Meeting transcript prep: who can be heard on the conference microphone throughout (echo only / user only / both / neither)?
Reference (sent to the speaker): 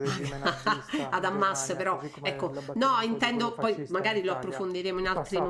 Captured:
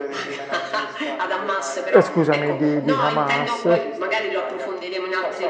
both